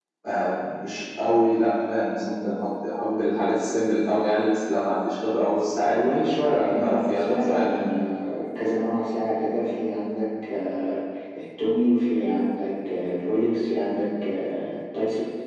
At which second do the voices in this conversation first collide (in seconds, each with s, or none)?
5.8 s